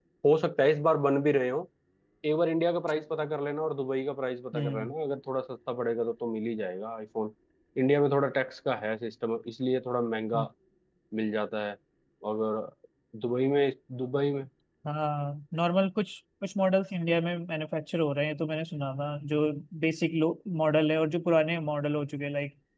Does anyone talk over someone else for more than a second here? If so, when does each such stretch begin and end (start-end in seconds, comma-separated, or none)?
none